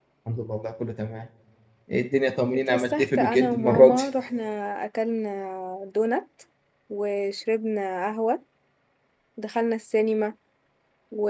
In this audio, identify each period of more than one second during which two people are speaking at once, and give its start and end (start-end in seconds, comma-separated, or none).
2.7-4.0